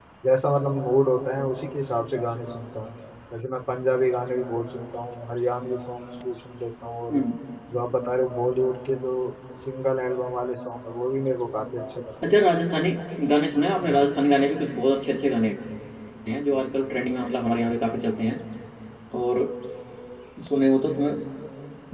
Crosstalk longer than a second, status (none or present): none